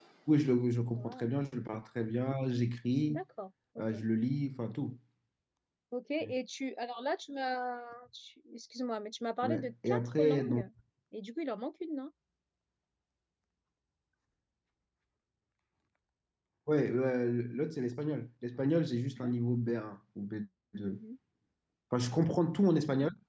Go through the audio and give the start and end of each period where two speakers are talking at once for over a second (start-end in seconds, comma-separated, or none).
9.4-10.7